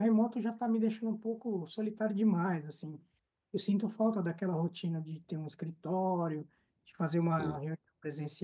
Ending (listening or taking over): listening